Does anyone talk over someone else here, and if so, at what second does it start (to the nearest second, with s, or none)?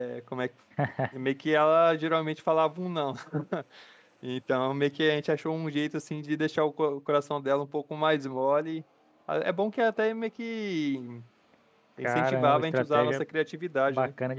12 s